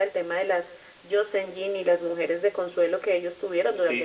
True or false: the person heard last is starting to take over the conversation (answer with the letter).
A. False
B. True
B